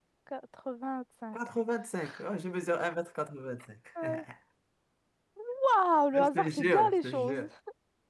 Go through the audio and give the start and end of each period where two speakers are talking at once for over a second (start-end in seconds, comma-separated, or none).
6.1-7.4